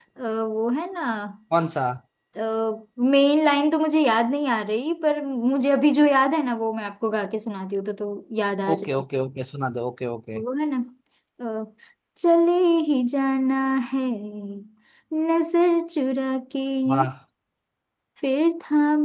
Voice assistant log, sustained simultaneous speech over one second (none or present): none